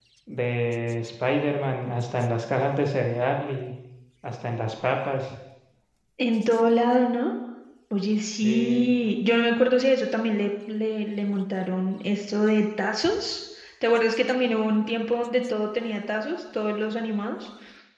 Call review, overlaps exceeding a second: none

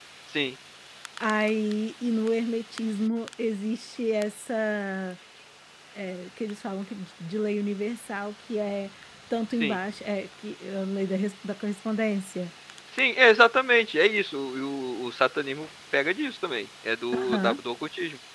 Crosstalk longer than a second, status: none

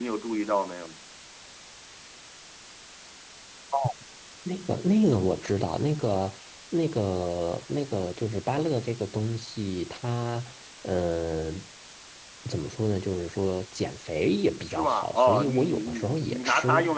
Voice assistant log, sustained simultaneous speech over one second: present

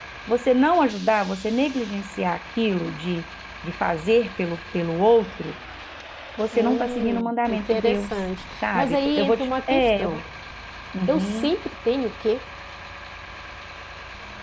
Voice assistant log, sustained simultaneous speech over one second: present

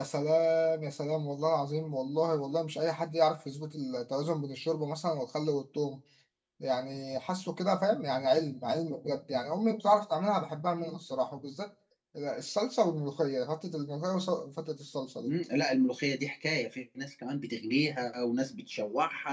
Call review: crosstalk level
none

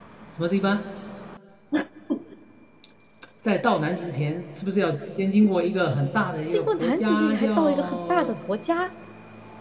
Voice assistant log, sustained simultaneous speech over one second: present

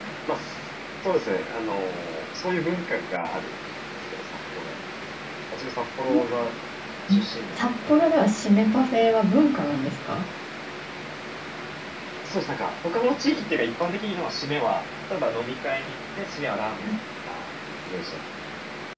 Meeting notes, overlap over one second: none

